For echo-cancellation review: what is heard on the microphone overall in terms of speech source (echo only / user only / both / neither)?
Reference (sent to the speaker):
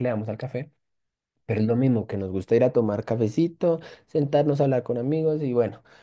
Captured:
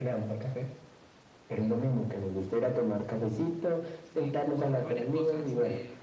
both